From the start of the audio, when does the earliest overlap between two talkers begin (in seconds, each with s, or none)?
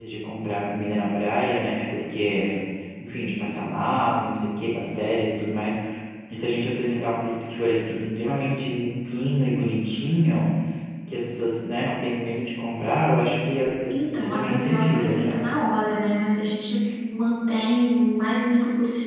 14.1 s